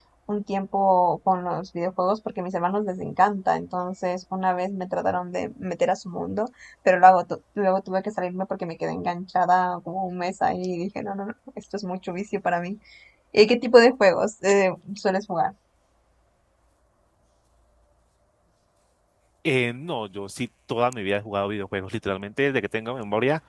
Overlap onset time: none

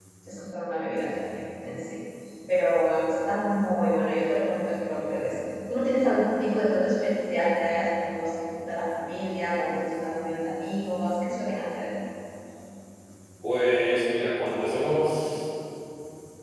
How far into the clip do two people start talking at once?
none

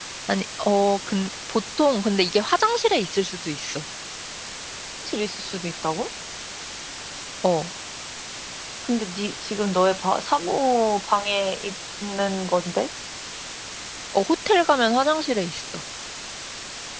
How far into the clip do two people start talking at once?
none

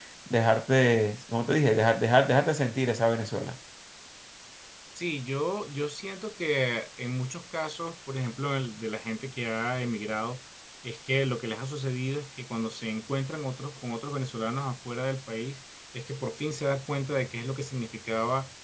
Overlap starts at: none

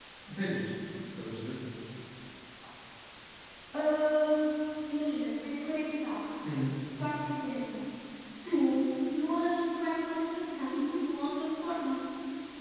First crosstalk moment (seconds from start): none

